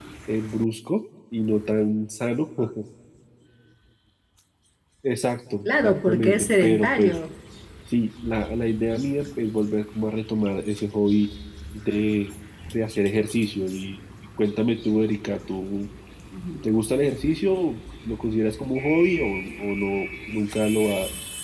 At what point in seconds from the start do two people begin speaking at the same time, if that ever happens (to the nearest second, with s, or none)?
6 s